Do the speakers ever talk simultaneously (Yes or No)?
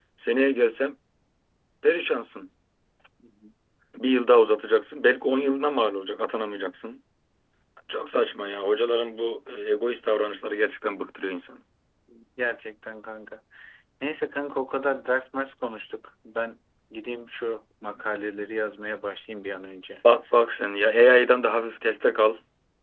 No